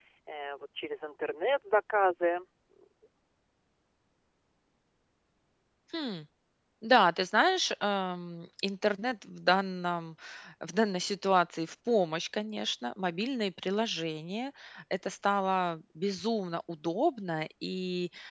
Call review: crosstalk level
none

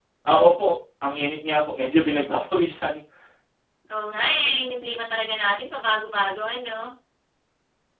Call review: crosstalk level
none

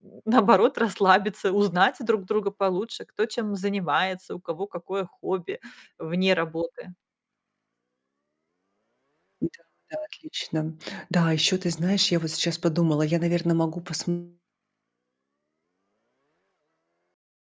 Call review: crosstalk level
none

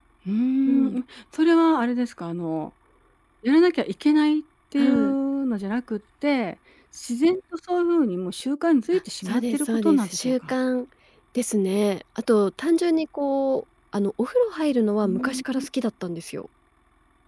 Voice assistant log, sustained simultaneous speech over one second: present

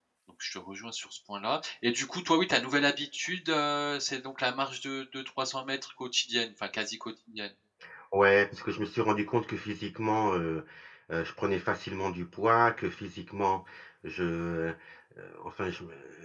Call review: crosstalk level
none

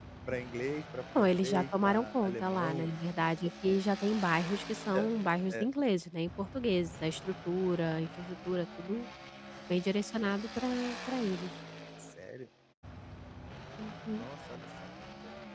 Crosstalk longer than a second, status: present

